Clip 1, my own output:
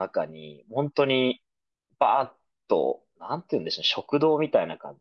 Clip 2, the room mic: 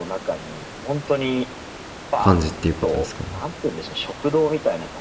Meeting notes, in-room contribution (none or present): present